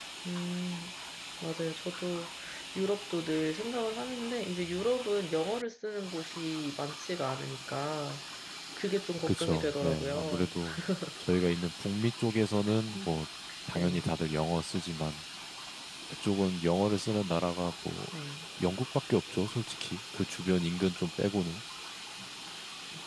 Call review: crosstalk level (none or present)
present